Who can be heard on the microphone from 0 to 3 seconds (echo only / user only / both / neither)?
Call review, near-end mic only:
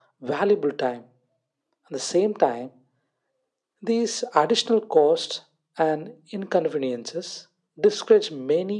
echo only